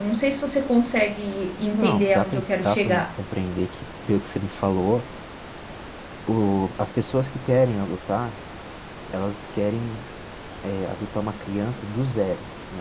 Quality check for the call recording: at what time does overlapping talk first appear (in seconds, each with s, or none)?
1.8 s